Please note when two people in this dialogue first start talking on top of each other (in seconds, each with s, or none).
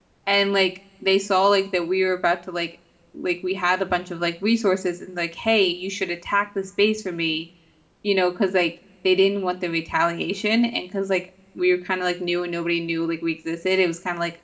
none